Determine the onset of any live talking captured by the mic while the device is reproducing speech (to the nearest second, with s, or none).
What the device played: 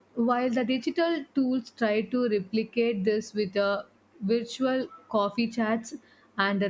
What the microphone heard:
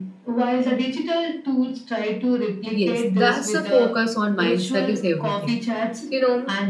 3 s